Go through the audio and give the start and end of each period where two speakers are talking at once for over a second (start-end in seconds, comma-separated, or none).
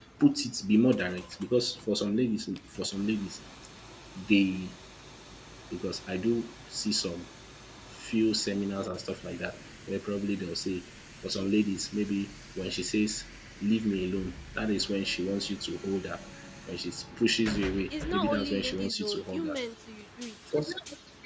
18.1-19.6